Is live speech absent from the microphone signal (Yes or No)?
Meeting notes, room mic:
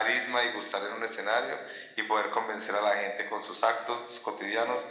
Yes